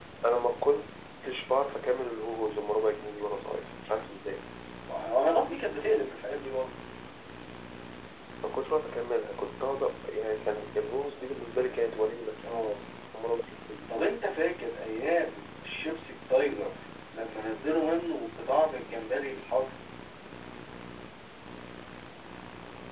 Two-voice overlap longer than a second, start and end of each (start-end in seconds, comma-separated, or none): none